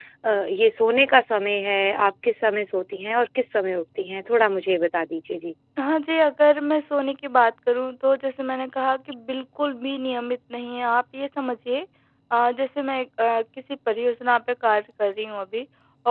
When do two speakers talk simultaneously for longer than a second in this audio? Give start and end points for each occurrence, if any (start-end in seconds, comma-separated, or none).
none